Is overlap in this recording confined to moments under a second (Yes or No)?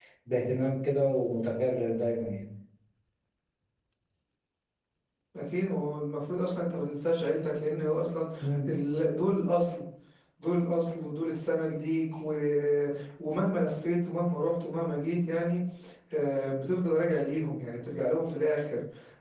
Yes